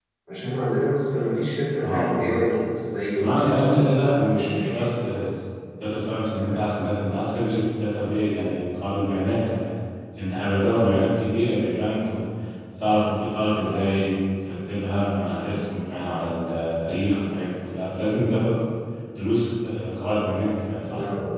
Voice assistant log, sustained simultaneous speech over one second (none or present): present